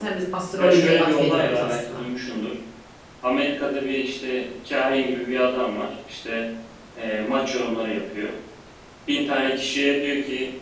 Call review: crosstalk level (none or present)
present